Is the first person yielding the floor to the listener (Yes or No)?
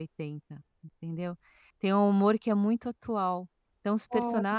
No